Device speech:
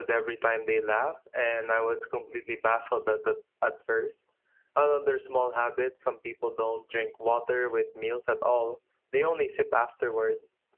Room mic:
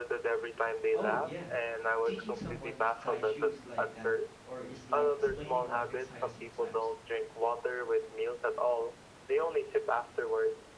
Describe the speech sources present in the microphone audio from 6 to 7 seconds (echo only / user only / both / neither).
both